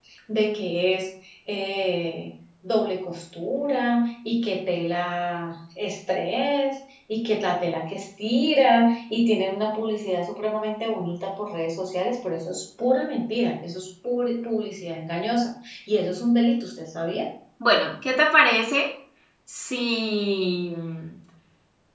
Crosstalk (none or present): none